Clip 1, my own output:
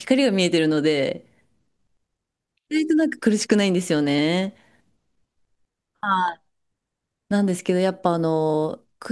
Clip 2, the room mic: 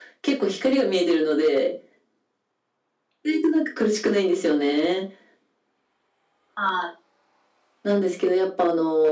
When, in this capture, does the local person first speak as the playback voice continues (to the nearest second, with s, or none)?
none